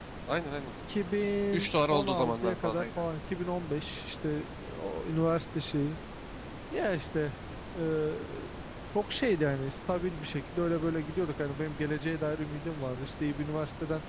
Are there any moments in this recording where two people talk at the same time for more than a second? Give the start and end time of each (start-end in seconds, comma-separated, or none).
1.5-2.9